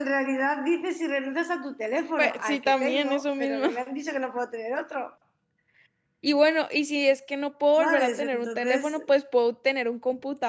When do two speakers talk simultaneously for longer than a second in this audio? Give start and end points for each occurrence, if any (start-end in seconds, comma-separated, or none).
2.2-3.7, 7.8-9.0